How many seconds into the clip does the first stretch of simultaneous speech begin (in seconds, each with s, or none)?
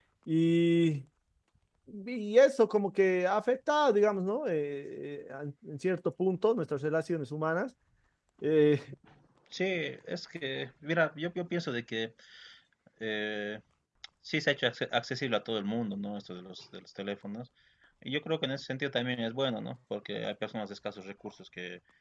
none